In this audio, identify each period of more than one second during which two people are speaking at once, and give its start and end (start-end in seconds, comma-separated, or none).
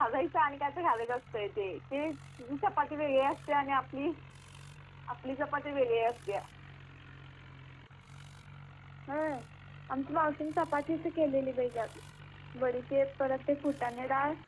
none